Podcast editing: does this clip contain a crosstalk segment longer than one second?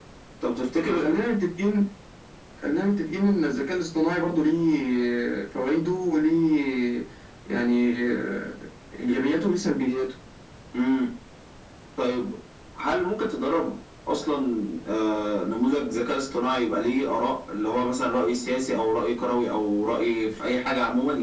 No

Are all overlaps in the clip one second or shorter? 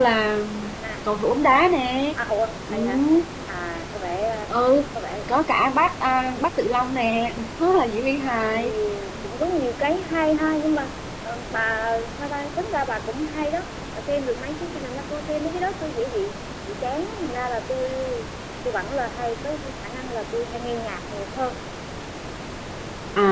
Yes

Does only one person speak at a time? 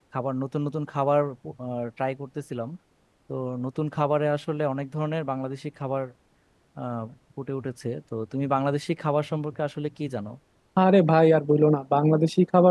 Yes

